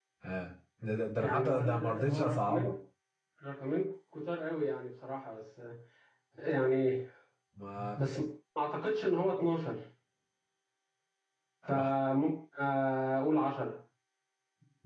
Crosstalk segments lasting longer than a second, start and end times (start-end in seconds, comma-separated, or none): 1.2-2.7